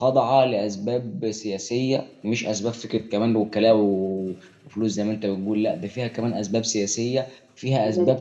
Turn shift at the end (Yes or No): No